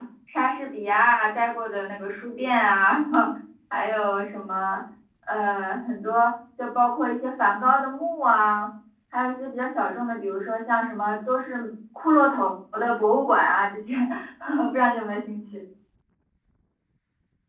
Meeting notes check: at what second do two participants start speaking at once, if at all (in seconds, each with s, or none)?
none